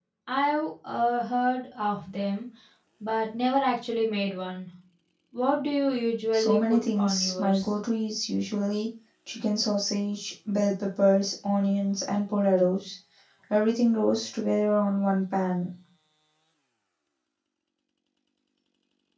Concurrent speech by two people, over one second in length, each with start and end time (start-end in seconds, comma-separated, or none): 6.3-7.7